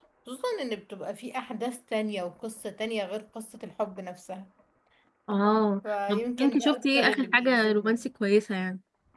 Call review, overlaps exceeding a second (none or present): present